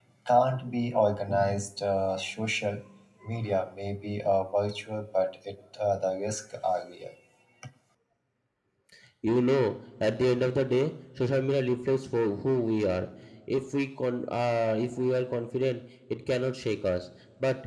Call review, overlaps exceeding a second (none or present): none